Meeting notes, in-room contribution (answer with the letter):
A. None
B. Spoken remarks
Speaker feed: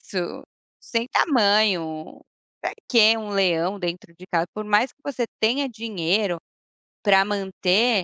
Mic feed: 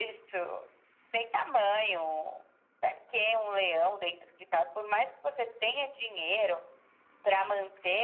A